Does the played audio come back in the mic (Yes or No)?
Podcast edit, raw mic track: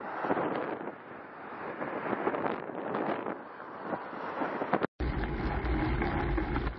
No